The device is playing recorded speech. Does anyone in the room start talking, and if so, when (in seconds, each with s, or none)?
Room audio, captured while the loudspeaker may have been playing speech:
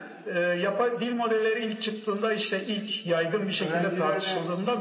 3.6 s